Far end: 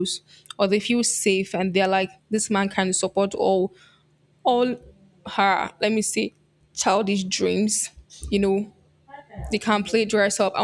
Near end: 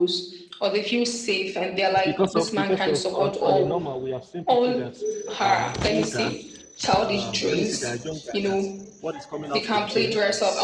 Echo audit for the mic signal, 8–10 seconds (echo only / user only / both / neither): both